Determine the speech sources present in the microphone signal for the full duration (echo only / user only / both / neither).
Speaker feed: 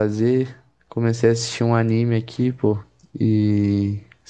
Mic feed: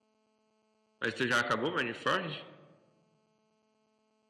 user only